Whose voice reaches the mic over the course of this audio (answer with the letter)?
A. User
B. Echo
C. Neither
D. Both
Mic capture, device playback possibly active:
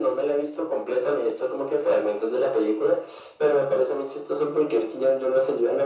B